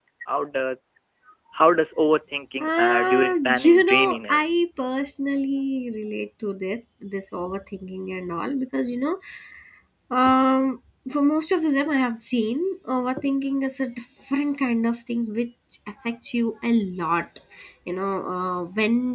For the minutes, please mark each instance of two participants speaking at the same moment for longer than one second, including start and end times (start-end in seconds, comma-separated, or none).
2.6-4.4